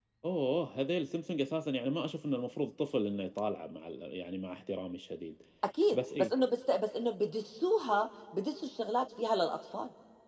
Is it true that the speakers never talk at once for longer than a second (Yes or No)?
Yes